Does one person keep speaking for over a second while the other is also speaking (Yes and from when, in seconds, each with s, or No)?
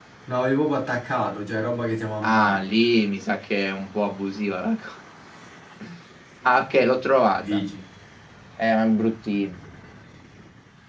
No